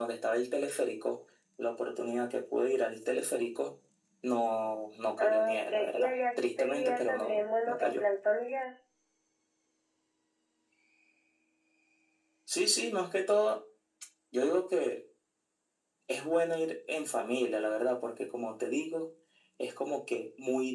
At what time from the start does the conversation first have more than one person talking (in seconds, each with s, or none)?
5.2 s